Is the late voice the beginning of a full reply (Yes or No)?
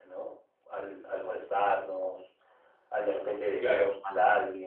No